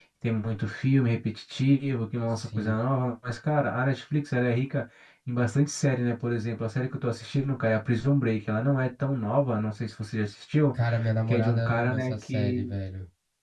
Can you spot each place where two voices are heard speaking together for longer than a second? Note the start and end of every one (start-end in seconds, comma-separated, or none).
11.3-12.7